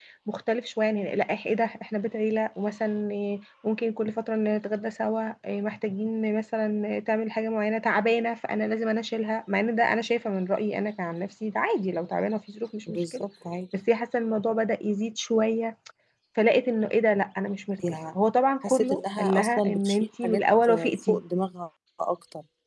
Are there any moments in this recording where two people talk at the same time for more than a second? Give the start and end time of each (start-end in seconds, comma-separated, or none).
18.6-21.2